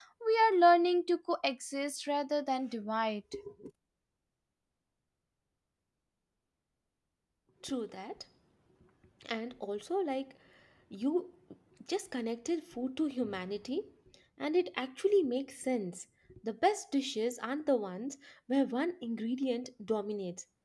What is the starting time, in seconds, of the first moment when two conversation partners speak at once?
none

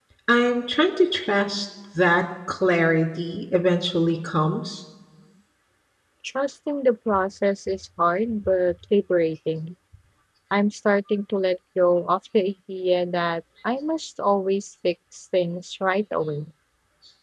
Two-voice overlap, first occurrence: none

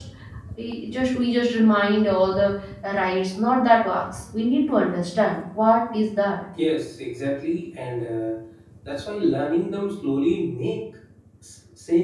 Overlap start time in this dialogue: none

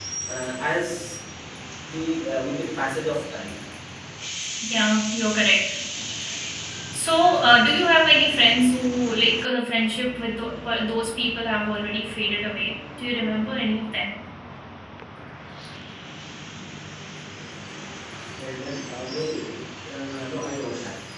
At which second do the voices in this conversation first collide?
none

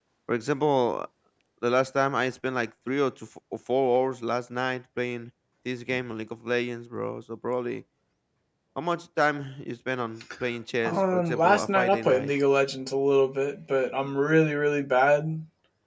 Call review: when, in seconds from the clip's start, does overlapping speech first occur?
10.8 s

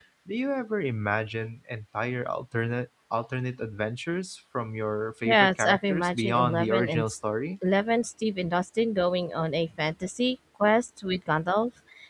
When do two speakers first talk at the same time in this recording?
5.2 s

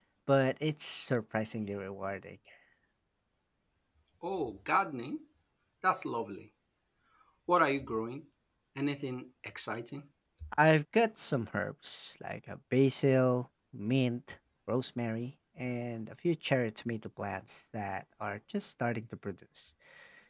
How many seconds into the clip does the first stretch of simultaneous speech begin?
none

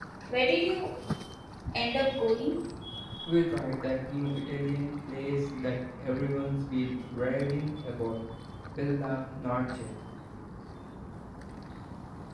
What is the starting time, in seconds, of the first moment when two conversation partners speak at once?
none

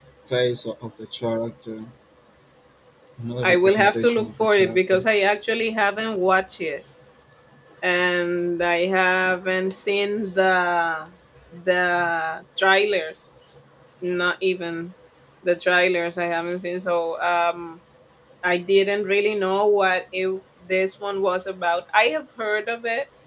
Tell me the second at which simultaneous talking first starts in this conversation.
3.4 s

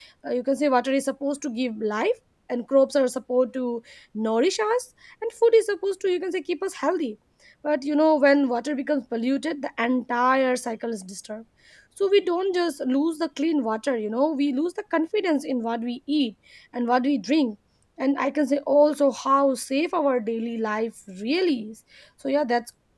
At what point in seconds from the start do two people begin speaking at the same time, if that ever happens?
none

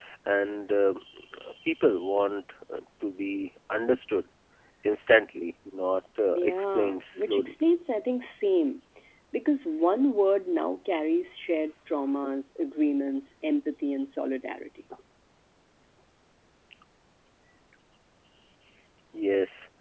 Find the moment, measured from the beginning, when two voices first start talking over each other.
6.3 s

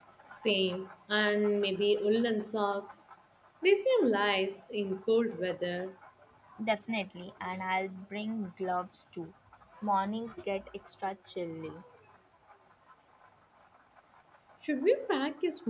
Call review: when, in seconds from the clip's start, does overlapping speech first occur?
none

